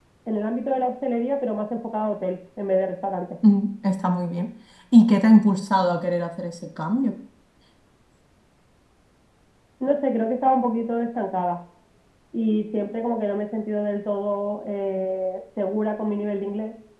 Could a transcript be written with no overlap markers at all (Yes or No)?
Yes